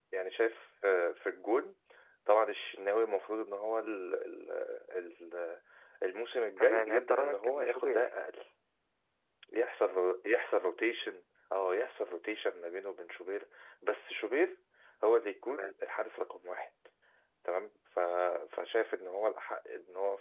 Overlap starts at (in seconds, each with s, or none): 6.6 s